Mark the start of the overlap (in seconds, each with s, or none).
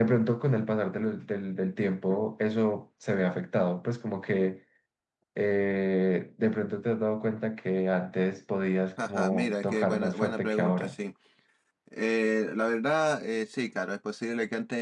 9.0 s